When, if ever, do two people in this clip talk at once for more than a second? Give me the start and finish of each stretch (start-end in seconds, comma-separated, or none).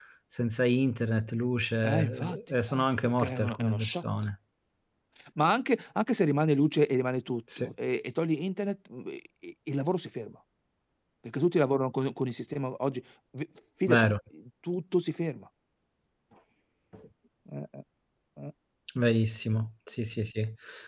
1.9-4.0